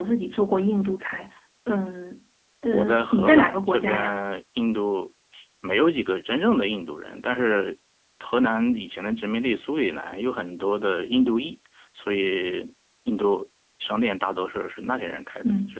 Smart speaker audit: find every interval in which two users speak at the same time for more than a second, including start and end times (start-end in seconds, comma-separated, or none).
2.7-4.2